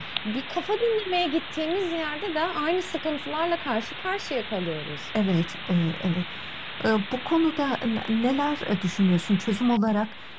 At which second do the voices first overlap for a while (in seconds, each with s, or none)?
none